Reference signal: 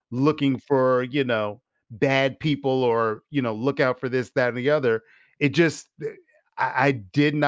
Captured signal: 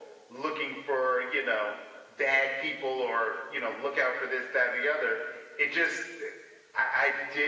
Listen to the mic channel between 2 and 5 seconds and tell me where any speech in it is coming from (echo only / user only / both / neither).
echo only